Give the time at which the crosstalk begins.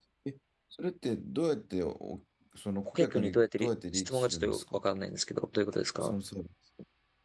2.9 s

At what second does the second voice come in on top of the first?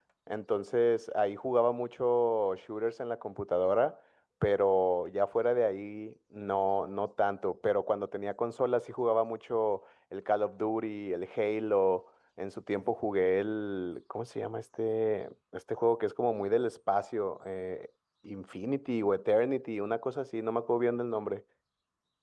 none

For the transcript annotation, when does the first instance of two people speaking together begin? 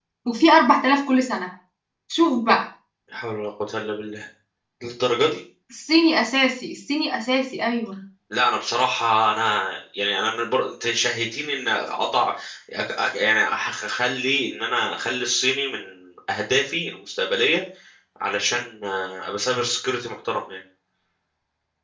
none

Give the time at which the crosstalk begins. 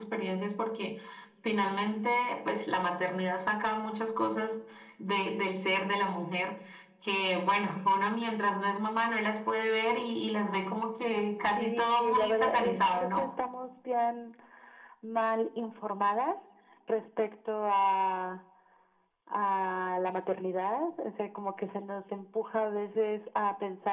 11.6 s

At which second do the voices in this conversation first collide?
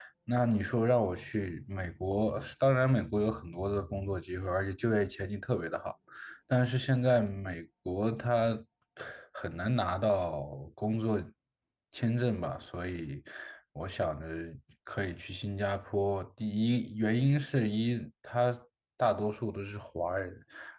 none

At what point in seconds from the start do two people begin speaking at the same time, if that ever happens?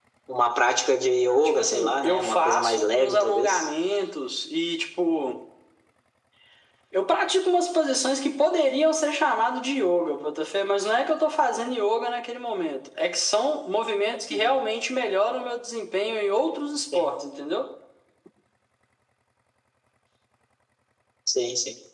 1.4 s

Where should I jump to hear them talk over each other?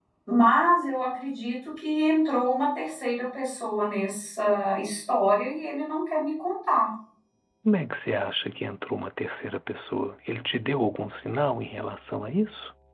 none

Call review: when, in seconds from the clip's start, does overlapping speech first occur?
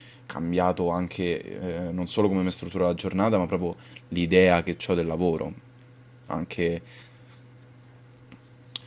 none

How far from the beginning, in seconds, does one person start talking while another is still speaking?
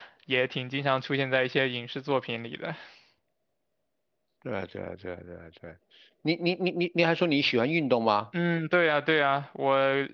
none

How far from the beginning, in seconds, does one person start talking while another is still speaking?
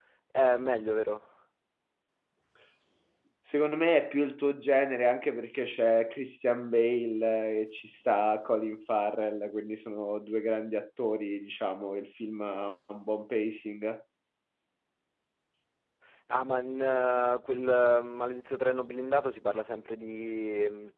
none

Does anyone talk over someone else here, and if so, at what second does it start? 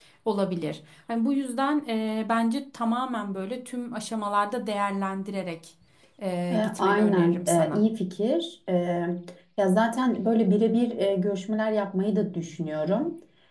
6.5 s

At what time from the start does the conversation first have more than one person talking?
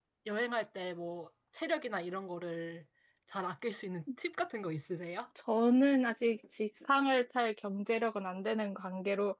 none

